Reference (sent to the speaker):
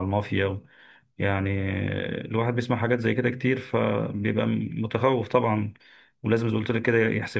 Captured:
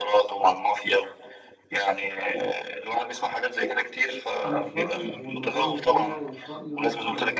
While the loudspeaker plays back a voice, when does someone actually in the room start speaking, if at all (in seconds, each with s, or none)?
4.4 s